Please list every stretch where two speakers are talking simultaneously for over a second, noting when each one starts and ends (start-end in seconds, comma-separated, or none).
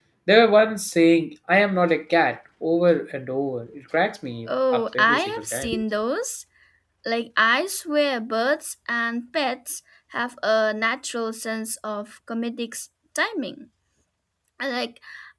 4.5-5.7